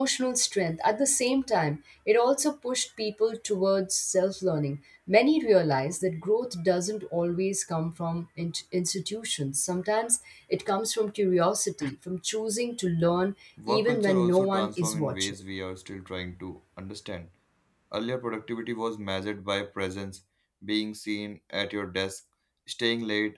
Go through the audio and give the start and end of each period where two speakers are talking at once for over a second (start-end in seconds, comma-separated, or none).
13.7-15.3